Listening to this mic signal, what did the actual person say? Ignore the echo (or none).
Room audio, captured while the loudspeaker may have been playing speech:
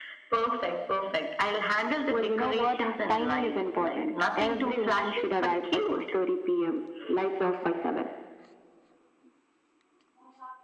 none